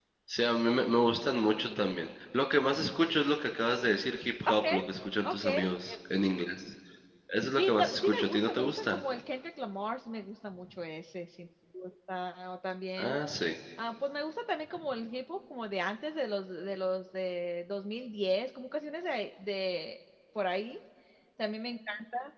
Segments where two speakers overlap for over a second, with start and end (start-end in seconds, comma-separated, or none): 7.5-9.0